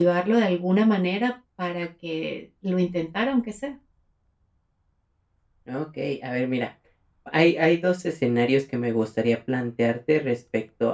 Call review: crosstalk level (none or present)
none